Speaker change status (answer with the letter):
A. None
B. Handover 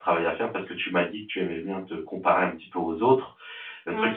A